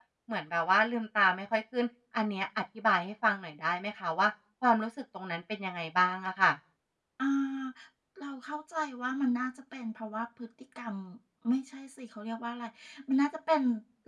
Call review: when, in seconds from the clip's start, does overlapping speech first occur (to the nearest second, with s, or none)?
none